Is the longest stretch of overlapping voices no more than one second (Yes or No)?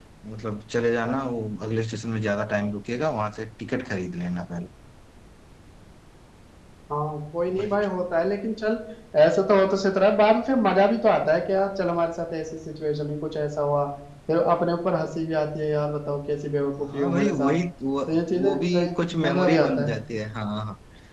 No